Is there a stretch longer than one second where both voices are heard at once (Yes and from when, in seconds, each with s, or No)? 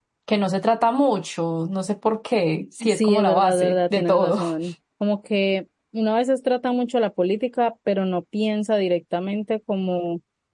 Yes, from 2.8 s